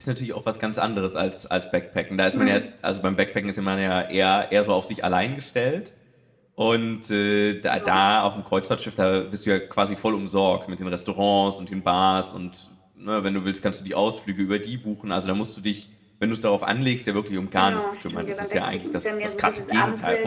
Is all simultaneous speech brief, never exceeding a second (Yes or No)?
No